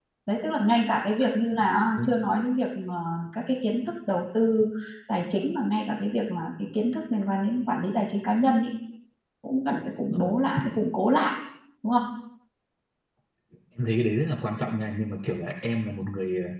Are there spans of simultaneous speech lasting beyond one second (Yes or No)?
No